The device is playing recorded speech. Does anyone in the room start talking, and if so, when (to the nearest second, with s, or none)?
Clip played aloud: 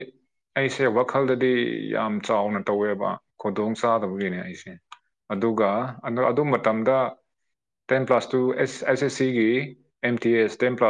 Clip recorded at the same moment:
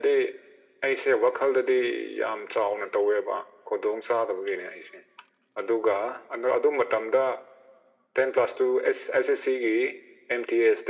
none